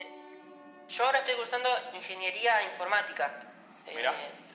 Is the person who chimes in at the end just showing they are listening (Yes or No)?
Yes